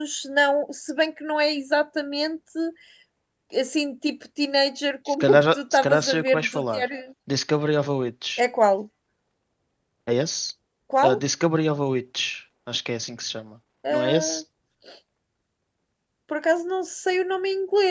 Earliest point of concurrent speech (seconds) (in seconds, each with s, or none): 5.1 s